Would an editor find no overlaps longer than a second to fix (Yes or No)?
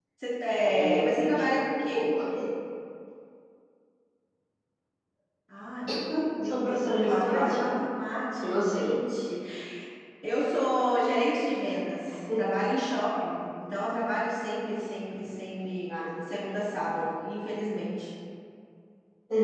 No